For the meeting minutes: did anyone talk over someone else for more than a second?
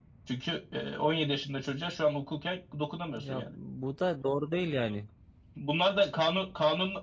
No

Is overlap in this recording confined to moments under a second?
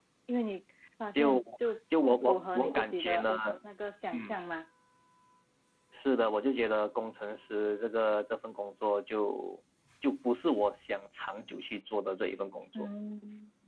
No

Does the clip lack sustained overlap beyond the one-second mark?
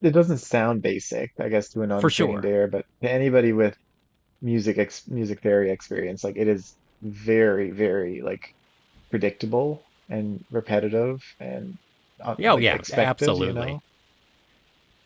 No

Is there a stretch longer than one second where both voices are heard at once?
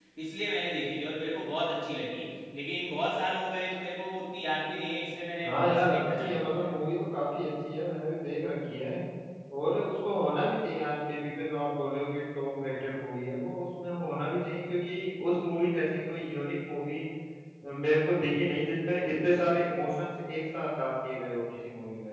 Yes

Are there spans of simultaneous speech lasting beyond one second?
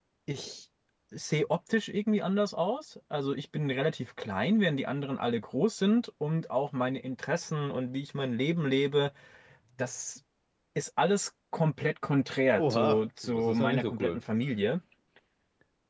Yes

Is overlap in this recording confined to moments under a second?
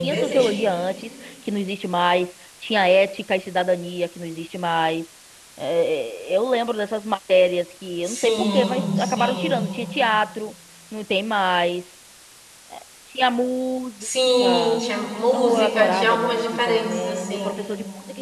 No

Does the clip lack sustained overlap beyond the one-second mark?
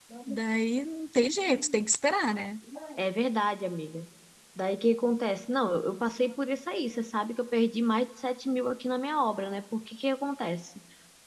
Yes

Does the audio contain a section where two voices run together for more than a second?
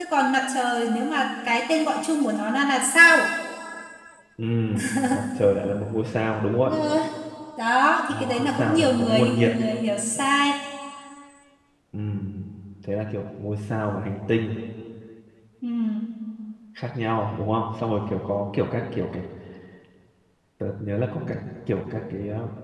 Yes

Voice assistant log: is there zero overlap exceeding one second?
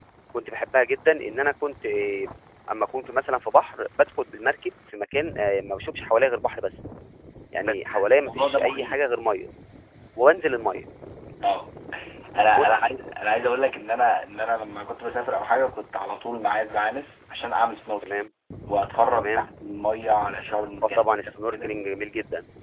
No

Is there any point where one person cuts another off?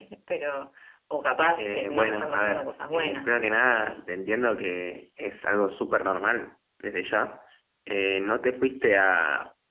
Yes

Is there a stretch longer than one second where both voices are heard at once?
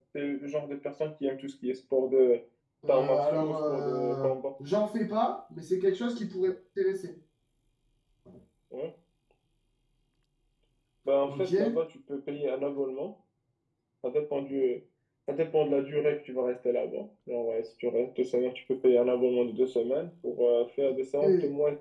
Yes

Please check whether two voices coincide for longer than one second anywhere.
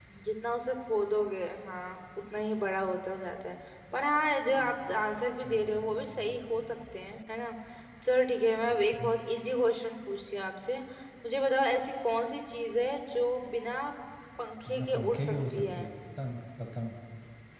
Yes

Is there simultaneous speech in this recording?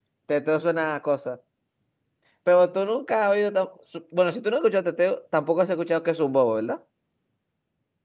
No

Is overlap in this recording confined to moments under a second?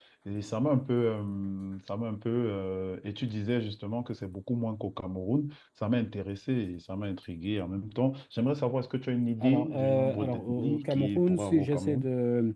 No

